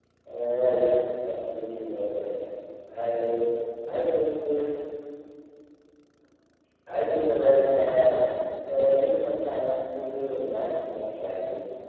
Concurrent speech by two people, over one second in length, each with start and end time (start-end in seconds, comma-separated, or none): none